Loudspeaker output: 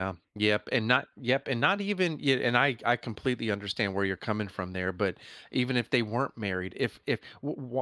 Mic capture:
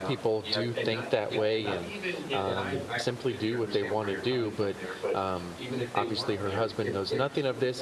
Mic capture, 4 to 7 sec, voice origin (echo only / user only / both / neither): both